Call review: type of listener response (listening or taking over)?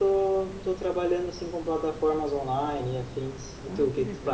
taking over